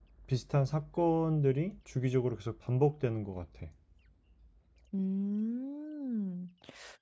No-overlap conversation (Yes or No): Yes